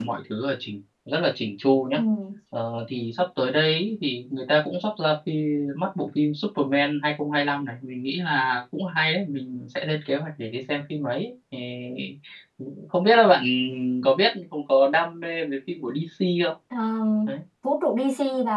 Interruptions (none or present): none